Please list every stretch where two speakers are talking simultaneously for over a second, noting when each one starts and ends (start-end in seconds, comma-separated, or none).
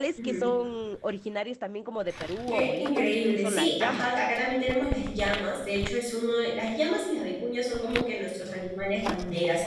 2.5-4.1